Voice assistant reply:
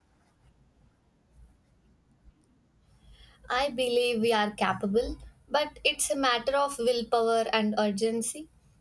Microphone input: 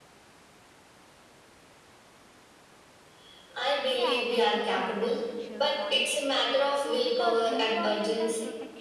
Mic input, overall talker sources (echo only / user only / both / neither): both